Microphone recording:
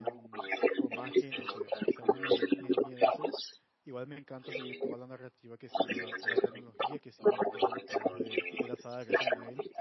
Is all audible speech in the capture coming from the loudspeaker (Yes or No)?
No